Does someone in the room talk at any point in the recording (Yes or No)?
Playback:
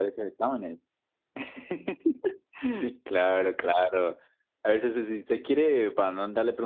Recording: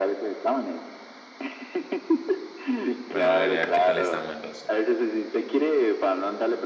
Yes